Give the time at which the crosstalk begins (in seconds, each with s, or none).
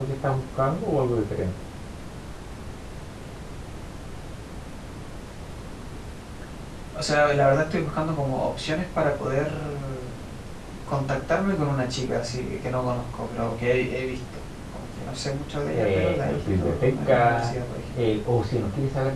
15.7 s